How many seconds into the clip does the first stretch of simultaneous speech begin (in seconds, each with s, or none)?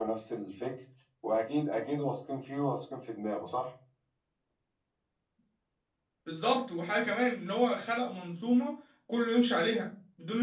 none